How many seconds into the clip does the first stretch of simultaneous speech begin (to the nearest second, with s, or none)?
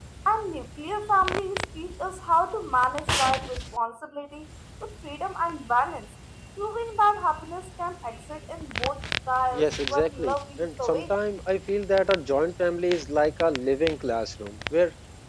10 s